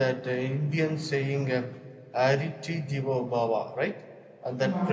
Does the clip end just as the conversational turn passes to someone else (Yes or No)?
No